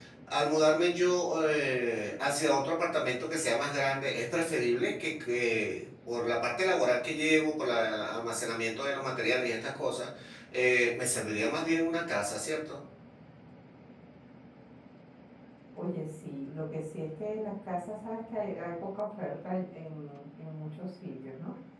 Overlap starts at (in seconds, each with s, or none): none